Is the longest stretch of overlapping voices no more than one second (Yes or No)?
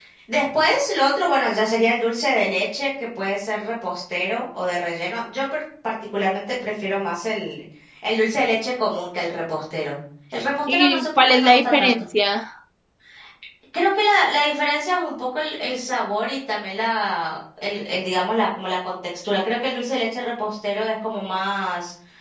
No